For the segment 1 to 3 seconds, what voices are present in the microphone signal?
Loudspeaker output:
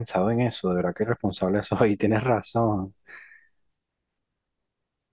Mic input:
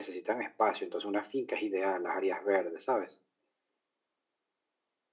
user only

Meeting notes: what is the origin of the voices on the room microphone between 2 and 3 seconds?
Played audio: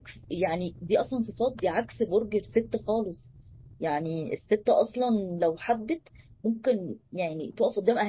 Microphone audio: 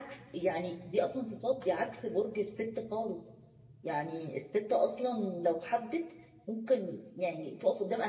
echo only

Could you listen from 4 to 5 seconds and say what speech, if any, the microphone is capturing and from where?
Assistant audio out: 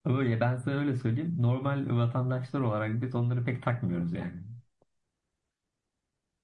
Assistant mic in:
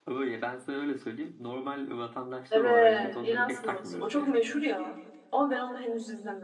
both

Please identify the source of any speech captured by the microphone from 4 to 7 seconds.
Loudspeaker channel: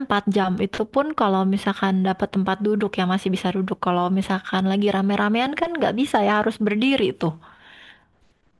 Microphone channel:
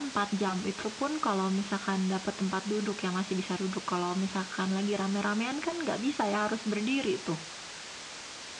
echo only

